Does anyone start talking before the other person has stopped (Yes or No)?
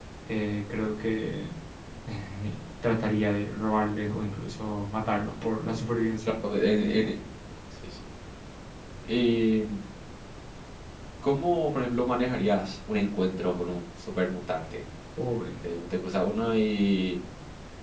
No